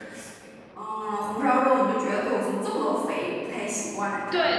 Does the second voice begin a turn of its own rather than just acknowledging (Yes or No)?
Yes